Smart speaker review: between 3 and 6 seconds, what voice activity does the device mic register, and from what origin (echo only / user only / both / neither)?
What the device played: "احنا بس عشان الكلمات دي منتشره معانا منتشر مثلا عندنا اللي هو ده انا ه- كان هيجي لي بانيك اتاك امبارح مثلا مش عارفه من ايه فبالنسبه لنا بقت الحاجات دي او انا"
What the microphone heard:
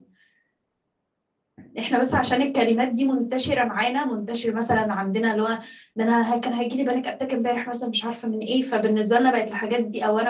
echo only